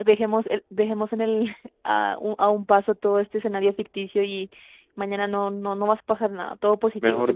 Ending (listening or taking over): taking over